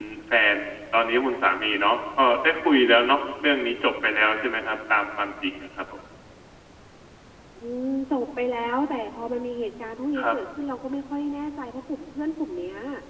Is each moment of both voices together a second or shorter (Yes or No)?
Yes